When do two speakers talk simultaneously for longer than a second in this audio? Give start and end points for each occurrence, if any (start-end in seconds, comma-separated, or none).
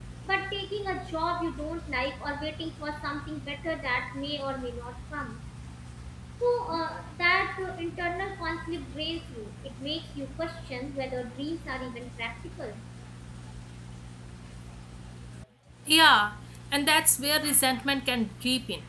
none